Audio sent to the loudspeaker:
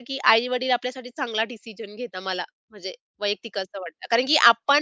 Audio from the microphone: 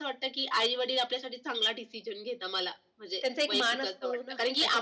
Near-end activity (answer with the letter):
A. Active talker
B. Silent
A